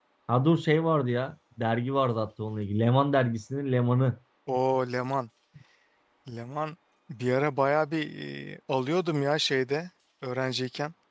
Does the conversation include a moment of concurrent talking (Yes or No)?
No